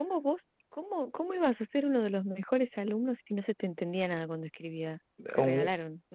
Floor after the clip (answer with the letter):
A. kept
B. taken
B